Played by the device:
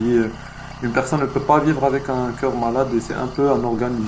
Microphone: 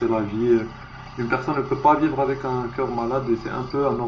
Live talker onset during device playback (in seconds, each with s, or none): none